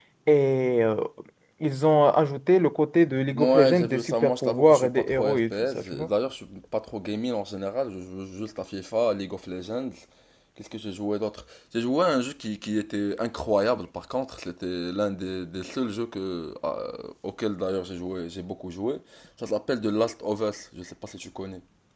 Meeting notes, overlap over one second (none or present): present